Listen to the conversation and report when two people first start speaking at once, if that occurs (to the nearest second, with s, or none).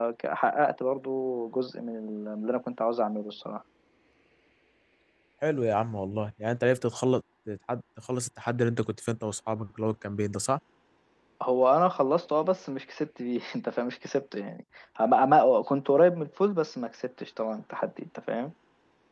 none